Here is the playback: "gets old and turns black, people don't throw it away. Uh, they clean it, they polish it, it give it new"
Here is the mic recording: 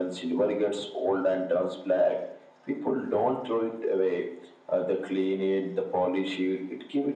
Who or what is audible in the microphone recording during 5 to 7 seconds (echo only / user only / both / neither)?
echo only